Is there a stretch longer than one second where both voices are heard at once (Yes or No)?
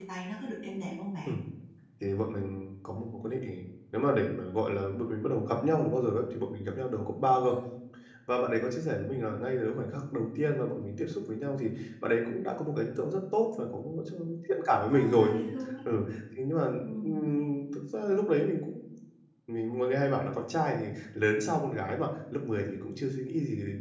No